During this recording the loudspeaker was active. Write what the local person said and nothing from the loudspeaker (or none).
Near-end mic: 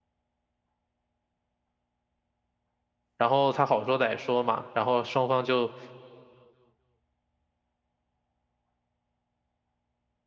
然后他好说歹说嘛，然后双方就